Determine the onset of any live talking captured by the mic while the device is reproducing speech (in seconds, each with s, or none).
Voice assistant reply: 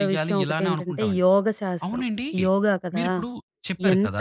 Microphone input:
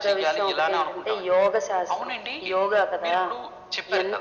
none